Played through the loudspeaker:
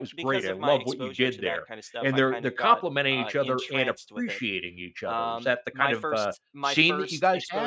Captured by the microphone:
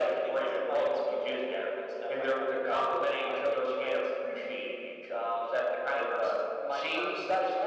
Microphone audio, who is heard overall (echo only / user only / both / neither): echo only